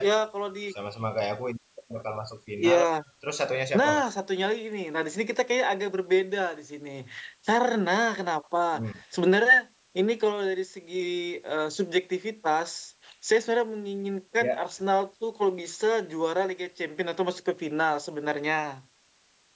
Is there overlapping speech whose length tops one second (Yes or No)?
No